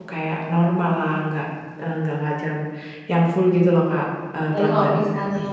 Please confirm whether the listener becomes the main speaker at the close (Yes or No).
Yes